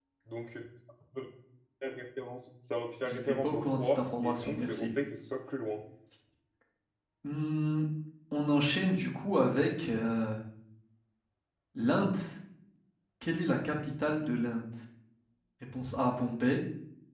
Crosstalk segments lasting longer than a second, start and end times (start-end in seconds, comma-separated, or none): 3.0-4.9